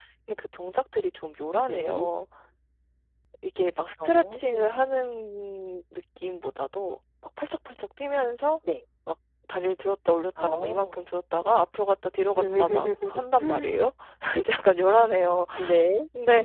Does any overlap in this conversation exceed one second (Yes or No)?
Yes